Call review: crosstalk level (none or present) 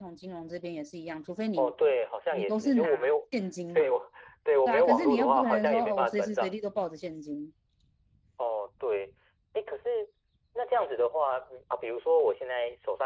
present